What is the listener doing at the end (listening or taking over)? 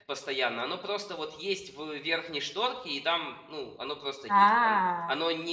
listening